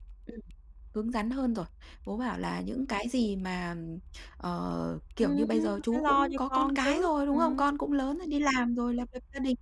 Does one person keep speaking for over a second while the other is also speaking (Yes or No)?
Yes